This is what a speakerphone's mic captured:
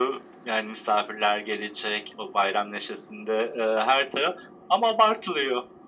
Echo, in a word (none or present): present